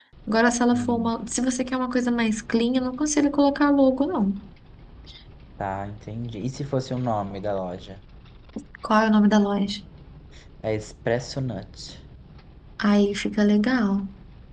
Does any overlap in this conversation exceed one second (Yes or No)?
No